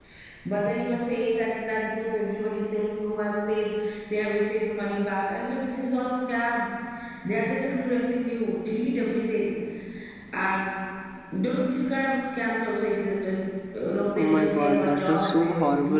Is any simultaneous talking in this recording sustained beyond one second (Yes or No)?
Yes